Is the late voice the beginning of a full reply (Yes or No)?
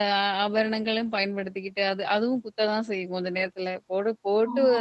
No